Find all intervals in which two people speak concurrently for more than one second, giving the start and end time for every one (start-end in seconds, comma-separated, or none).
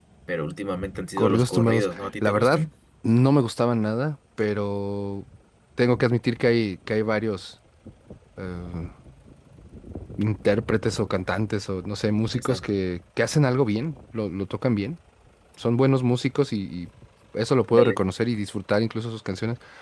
1.2-2.6